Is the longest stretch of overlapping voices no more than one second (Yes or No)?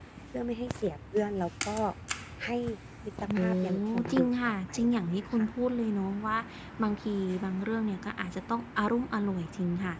No